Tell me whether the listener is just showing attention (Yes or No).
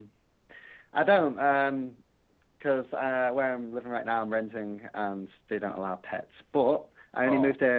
Yes